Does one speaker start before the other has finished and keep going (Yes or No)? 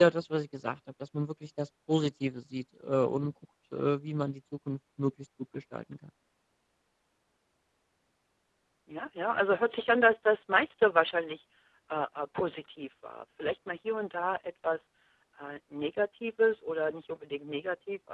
No